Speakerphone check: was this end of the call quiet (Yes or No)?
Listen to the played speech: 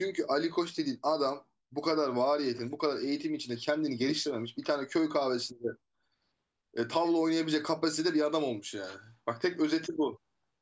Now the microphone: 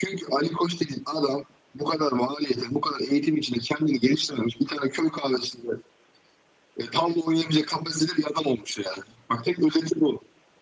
Yes